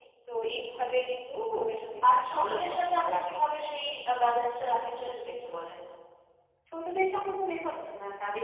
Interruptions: present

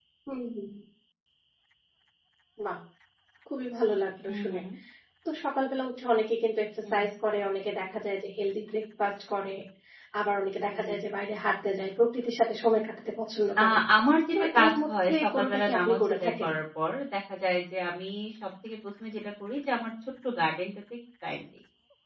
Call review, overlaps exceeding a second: present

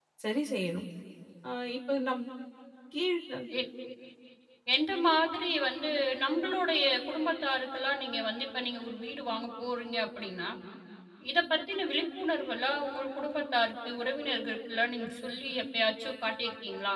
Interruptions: none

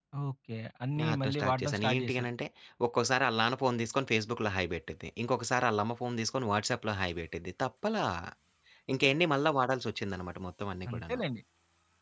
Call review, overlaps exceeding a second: present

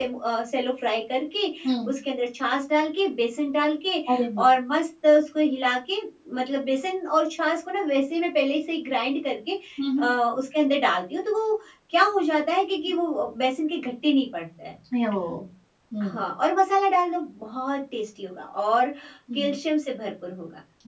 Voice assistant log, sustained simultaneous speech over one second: none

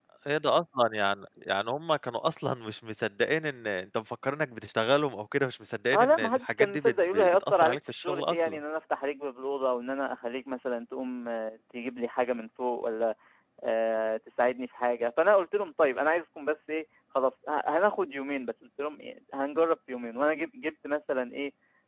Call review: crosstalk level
present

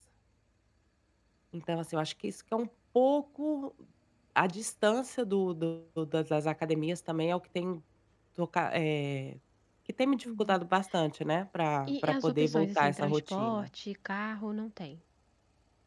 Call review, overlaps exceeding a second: present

